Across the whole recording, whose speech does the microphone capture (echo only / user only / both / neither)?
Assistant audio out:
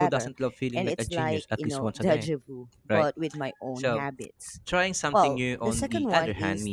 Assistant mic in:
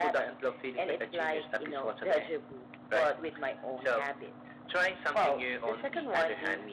echo only